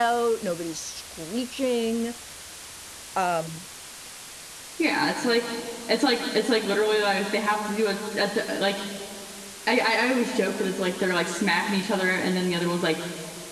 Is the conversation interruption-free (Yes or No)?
Yes